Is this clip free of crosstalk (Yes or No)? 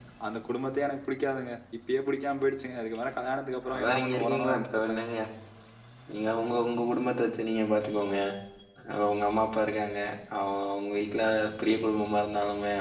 No